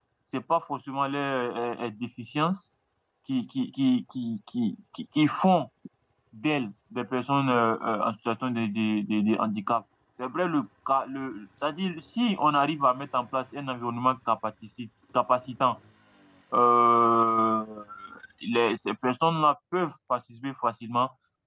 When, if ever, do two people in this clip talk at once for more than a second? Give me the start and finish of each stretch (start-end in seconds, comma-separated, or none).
none